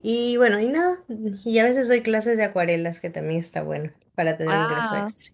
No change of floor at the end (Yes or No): No